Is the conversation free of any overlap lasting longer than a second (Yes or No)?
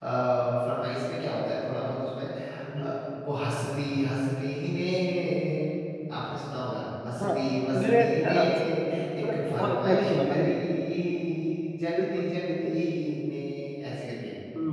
No